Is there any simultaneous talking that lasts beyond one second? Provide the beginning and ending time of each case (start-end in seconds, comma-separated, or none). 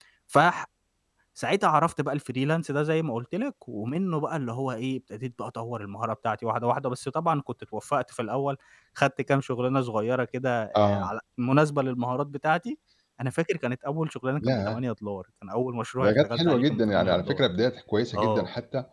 16.0-17.4